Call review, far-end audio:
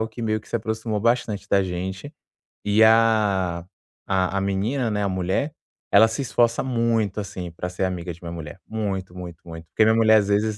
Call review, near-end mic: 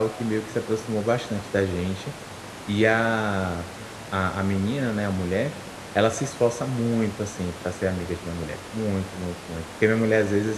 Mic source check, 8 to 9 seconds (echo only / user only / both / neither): echo only